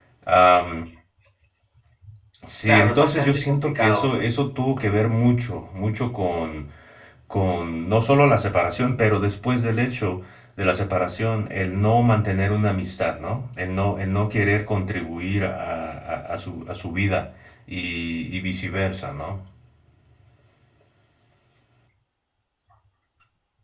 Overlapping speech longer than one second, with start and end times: 2.7-4.1

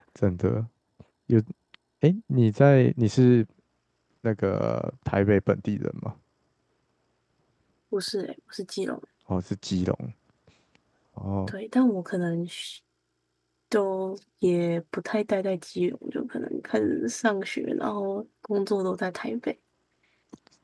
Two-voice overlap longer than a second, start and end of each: none

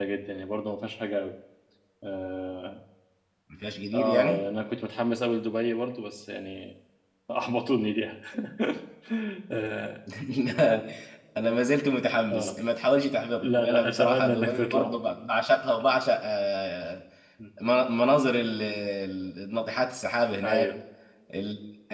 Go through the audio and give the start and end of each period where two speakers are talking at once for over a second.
13.4-14.9

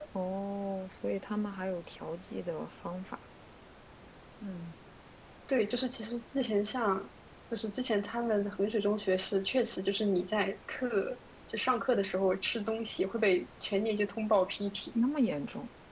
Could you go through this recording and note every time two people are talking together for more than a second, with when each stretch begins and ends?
none

